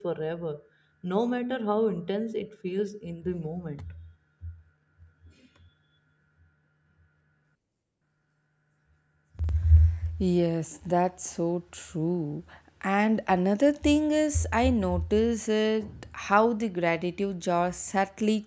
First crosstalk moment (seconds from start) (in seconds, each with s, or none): none